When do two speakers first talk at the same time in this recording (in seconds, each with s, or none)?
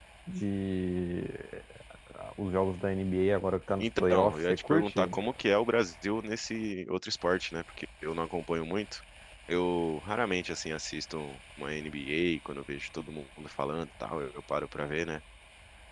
3.8 s